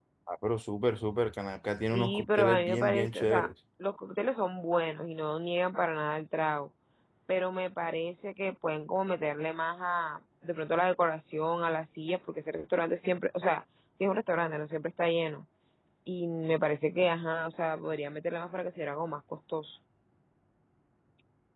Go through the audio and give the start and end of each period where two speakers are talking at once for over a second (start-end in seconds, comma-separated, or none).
1.6-3.5